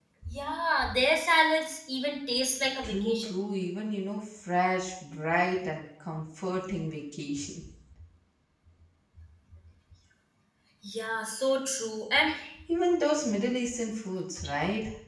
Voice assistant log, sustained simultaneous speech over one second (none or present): none